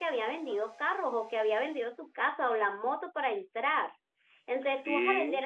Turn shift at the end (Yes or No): No